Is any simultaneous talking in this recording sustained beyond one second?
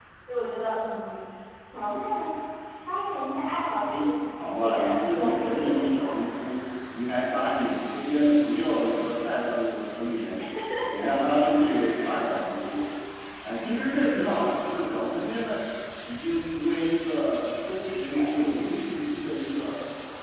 Yes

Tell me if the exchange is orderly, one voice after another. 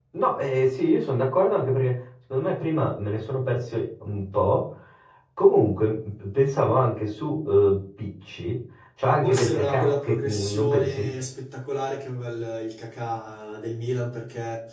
No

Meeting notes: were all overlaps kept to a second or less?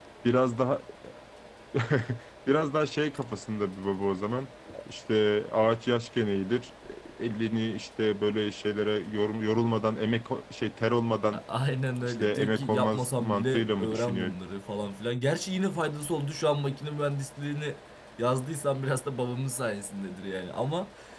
No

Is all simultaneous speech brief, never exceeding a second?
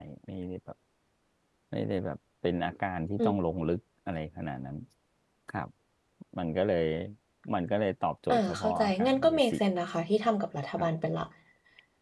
No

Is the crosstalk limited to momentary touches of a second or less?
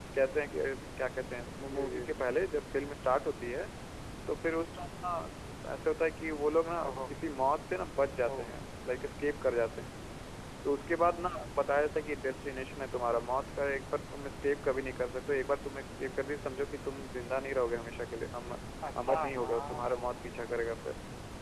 No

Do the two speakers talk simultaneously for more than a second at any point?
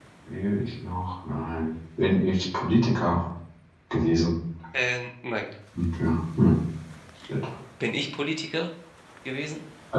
No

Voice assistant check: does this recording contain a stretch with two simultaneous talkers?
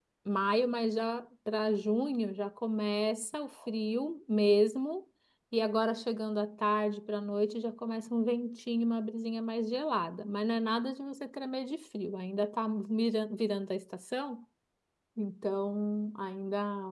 No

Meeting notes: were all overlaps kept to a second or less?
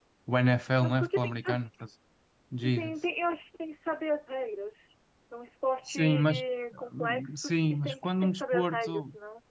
No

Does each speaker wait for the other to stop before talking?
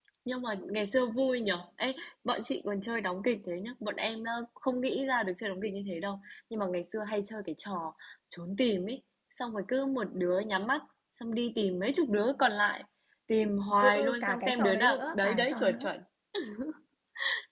No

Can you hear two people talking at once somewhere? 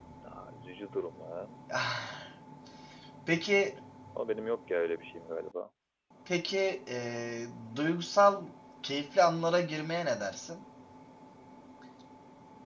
No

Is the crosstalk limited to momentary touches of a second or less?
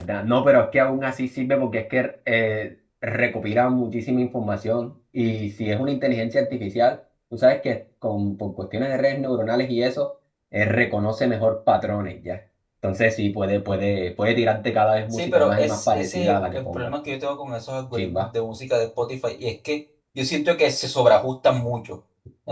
No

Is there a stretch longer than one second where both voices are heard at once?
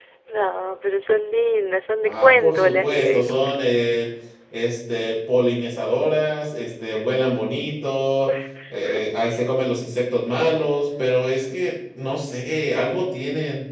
Yes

